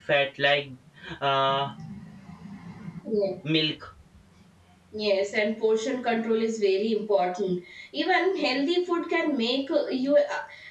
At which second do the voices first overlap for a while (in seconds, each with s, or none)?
none